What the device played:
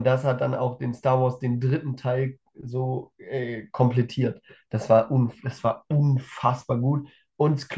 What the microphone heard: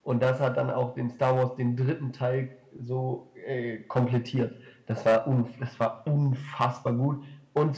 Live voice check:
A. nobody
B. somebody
A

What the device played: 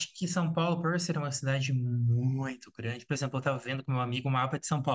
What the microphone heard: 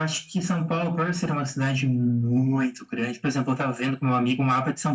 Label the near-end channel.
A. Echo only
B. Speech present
A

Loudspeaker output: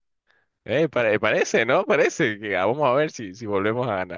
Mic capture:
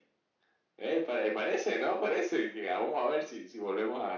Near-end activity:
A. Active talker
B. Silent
B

